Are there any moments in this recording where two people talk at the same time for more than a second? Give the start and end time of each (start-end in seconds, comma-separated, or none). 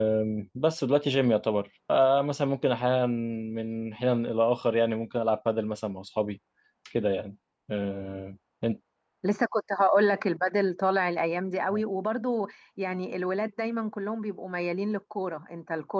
none